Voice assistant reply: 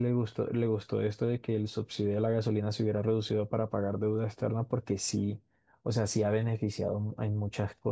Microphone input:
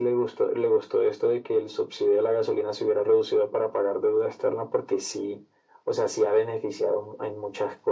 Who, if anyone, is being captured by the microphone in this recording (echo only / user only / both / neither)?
echo only